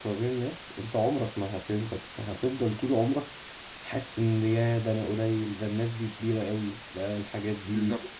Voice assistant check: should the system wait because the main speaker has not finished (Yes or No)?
No